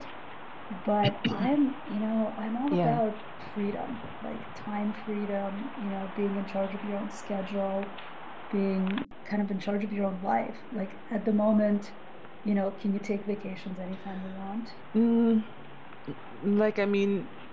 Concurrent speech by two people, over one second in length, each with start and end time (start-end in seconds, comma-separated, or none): none